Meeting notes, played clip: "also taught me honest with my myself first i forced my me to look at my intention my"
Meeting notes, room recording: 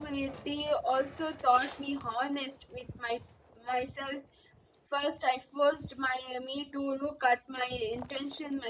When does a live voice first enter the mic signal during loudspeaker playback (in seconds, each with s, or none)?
none